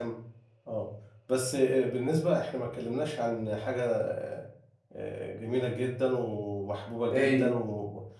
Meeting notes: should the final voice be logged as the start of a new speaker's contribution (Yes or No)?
No